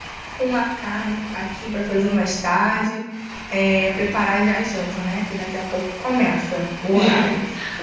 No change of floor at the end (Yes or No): No